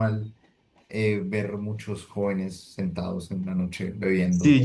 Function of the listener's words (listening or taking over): taking over